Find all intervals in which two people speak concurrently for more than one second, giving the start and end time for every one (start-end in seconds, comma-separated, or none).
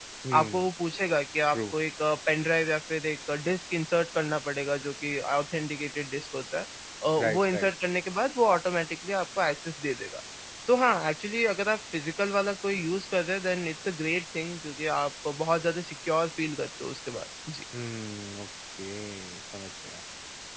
none